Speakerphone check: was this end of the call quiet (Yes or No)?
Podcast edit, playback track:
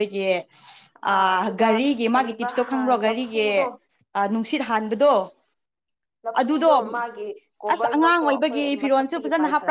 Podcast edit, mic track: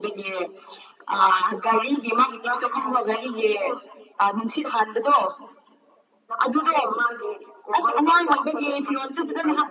Yes